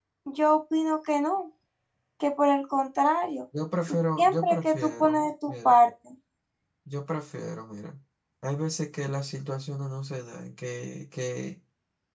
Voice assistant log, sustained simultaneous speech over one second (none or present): present